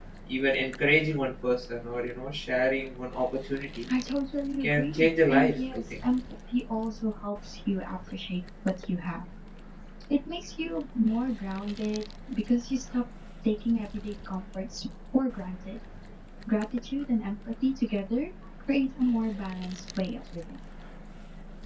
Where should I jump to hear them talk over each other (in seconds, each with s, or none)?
4.6 s